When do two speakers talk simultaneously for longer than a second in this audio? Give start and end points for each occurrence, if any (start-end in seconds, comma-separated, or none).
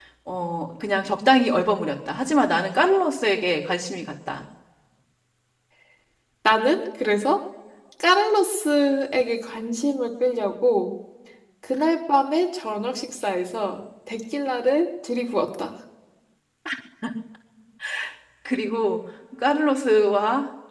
none